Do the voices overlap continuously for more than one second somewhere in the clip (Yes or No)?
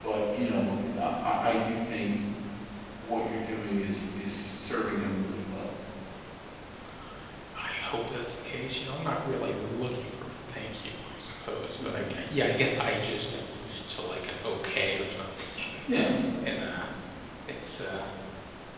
No